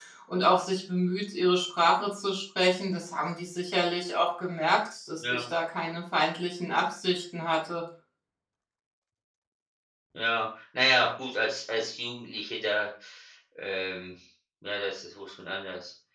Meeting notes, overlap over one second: none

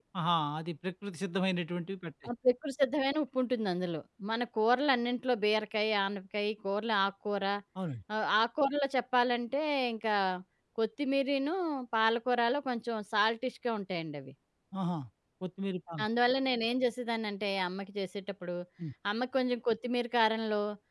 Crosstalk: none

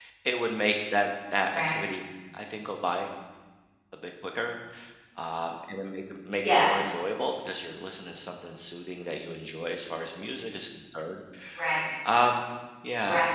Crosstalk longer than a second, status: none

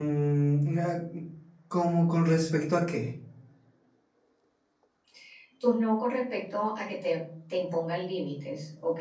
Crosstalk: none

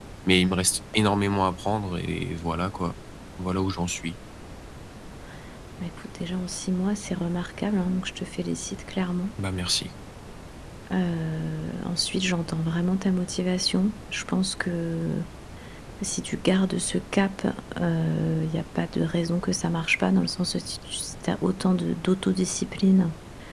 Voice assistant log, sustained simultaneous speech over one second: none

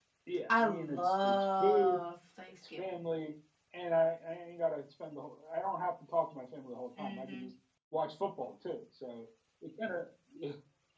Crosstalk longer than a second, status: present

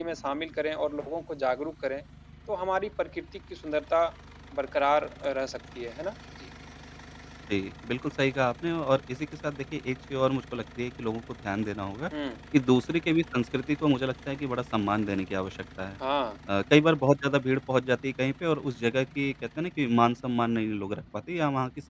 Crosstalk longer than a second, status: none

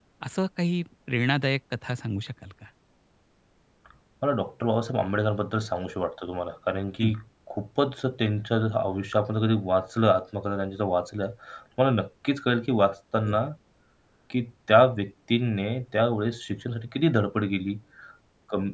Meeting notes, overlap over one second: none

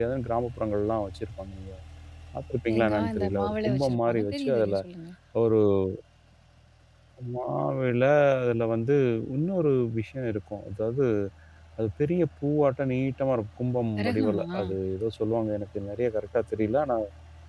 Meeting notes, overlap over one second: present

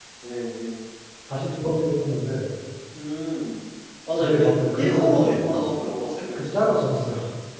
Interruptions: present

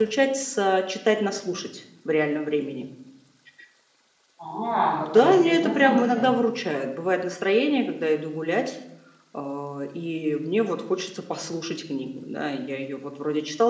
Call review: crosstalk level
present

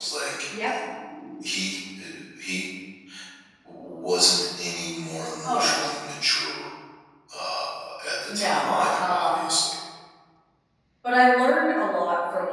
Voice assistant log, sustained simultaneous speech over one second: present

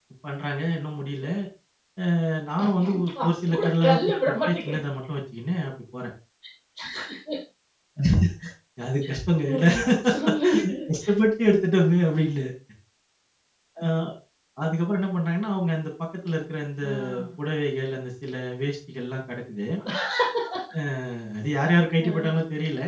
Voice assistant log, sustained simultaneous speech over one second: present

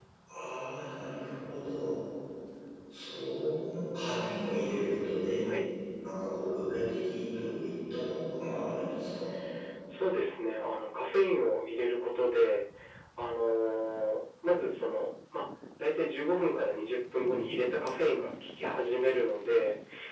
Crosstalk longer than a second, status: none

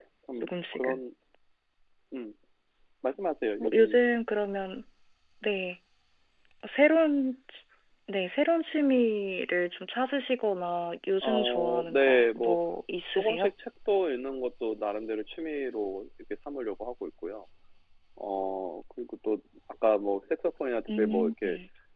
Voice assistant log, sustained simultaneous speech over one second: present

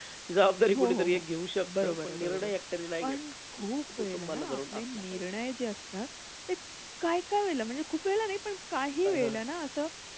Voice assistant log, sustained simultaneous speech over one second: present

